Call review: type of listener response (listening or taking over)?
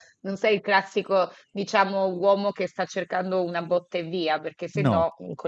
listening